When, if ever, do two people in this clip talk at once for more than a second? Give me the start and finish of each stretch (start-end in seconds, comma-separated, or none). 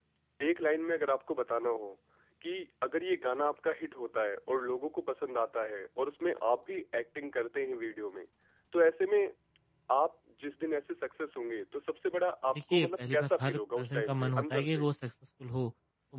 12.5-14.9